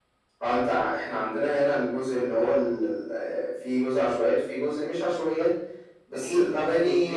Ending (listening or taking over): taking over